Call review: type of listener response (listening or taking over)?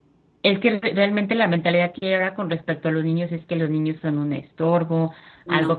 listening